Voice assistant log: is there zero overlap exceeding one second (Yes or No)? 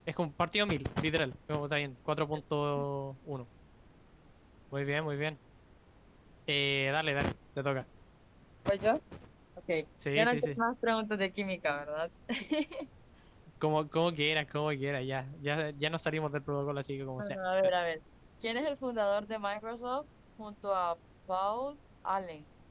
Yes